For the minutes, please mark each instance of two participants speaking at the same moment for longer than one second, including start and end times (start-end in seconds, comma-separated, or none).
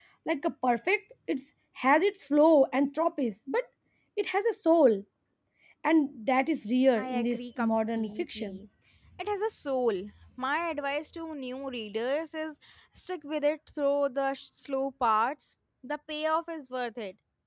7.0-8.6